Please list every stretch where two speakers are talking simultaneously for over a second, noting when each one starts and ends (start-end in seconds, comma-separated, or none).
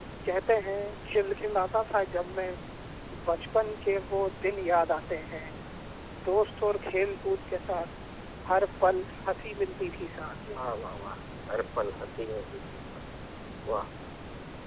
none